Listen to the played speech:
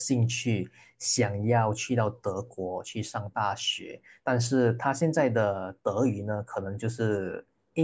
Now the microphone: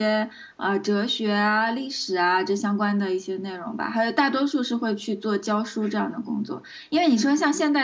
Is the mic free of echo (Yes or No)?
Yes